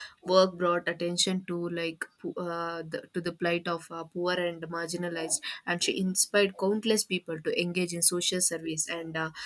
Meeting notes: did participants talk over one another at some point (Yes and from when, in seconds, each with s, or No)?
No